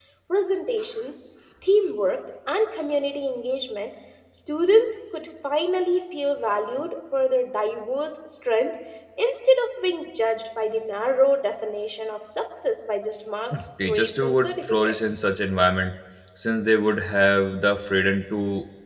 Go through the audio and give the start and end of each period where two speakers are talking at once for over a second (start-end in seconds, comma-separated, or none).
13.8-15.2